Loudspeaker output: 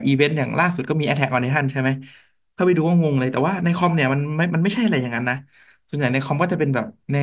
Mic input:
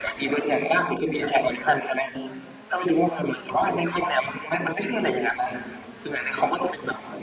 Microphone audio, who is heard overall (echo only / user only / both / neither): echo only